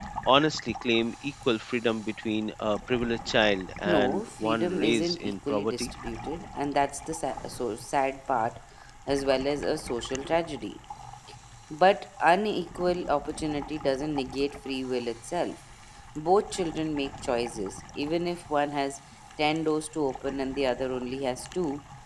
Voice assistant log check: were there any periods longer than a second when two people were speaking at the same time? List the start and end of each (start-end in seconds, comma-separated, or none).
3.9-5.9